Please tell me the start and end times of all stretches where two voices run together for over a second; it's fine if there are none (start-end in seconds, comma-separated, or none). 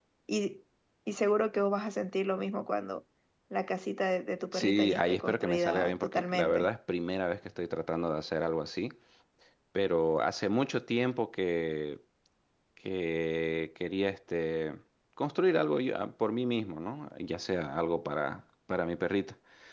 4.5-6.7